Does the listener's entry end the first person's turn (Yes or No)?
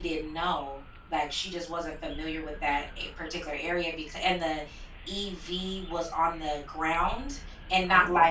No